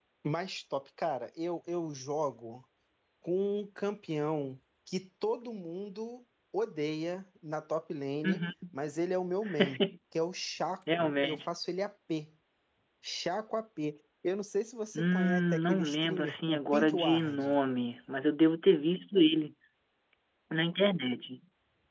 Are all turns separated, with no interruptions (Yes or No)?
No